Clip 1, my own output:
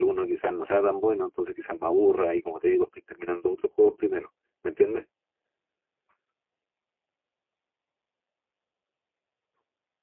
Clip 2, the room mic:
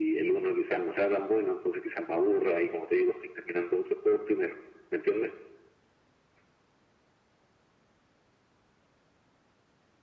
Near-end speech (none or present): none